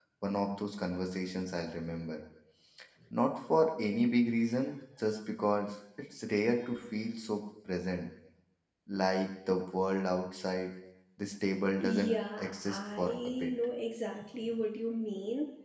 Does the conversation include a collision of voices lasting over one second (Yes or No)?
Yes